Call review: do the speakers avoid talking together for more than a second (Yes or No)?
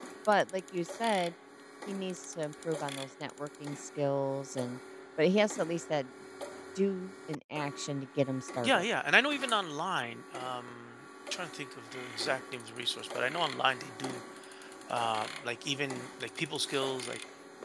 Yes